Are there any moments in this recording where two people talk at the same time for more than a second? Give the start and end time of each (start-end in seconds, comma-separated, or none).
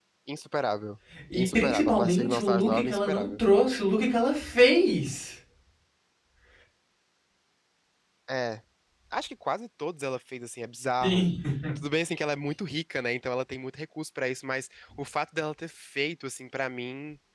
1.3-3.4